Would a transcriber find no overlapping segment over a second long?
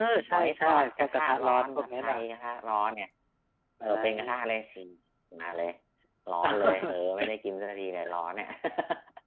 No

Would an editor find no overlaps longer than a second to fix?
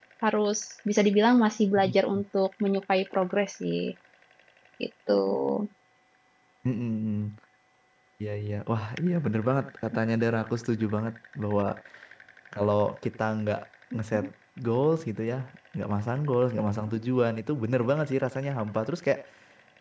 Yes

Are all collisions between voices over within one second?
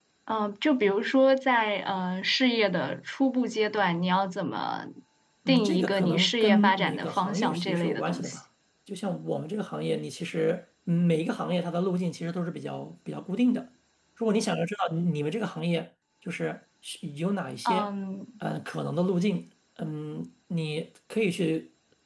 No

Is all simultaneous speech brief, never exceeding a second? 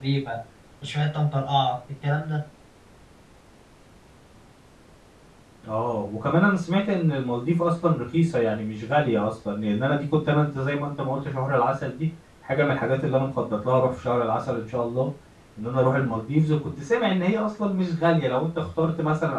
Yes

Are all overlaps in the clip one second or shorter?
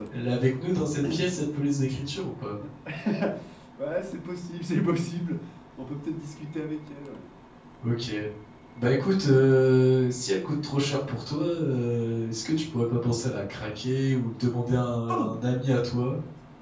Yes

